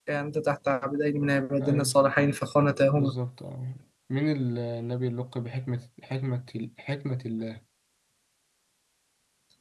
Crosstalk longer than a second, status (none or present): none